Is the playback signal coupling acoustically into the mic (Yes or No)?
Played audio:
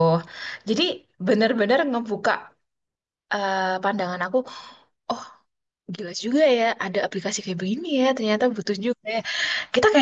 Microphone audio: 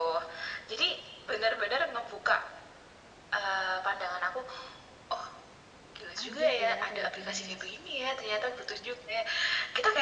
Yes